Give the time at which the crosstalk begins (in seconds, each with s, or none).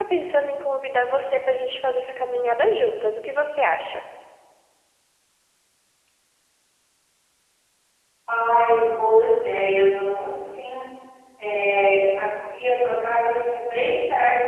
none